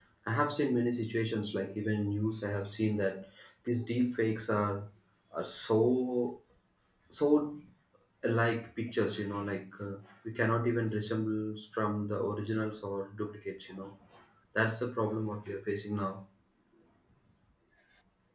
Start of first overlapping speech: none

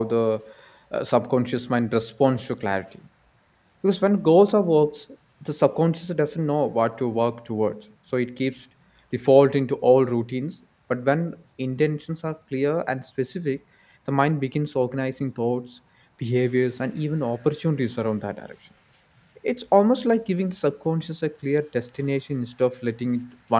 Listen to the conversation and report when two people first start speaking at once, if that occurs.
none

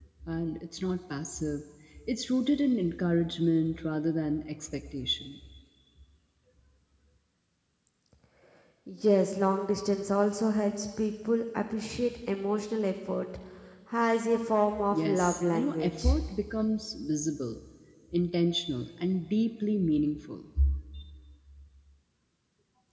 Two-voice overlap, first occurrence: 14.7 s

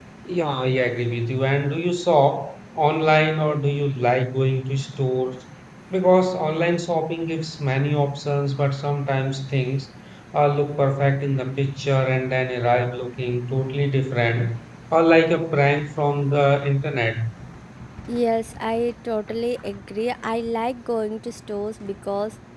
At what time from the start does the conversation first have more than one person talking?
none

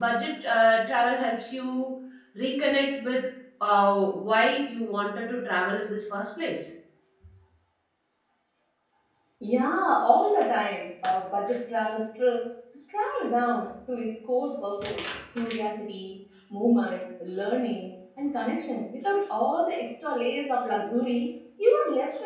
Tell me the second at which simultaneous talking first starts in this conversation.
none

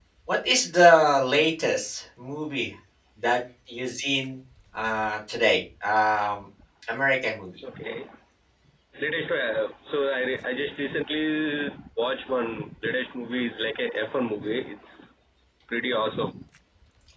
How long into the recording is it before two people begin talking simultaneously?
none

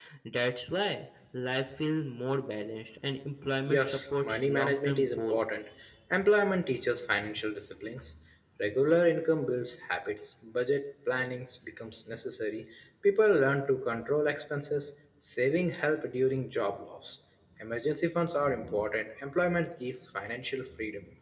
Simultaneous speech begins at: 3.6 s

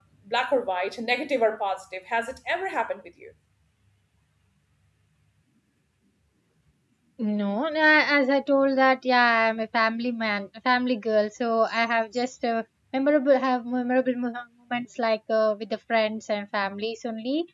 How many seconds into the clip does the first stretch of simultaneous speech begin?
none

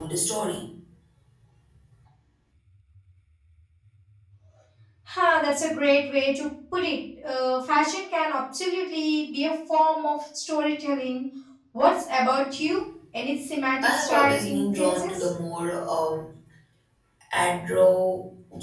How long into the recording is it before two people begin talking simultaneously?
13.8 s

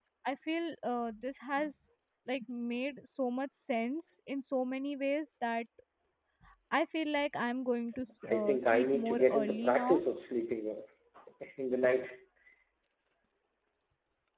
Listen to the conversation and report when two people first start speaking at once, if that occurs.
8.3 s

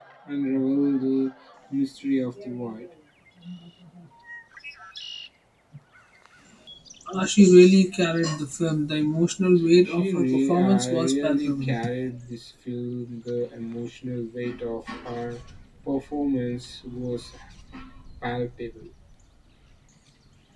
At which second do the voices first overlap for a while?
9.8 s

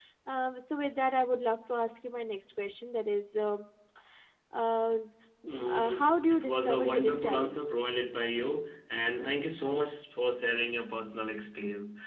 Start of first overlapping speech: 5.7 s

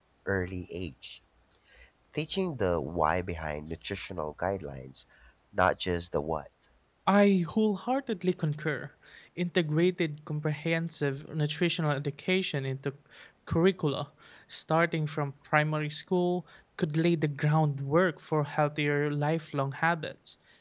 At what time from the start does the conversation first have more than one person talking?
none

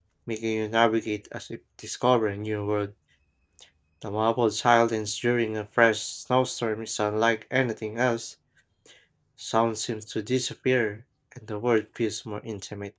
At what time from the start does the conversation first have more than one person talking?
none

